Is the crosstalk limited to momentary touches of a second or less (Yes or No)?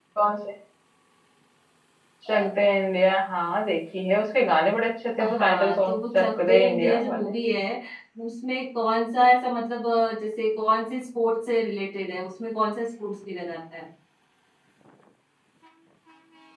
No